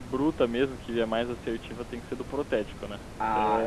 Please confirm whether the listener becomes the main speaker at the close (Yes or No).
Yes